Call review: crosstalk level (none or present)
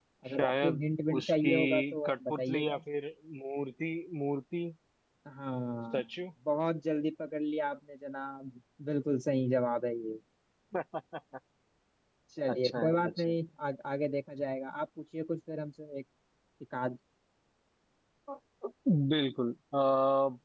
present